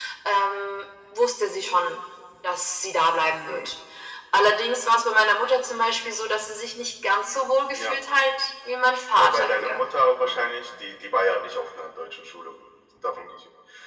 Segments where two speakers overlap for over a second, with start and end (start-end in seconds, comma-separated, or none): 9.2-10.5